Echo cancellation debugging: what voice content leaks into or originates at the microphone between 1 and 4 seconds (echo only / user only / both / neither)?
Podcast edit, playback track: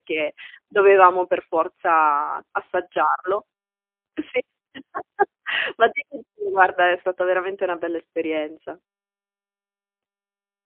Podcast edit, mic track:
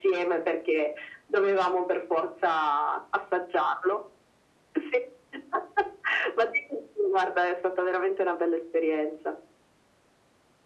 echo only